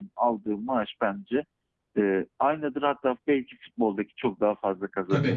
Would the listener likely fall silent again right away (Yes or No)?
No